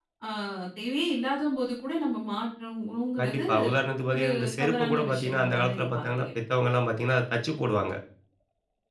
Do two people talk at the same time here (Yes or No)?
Yes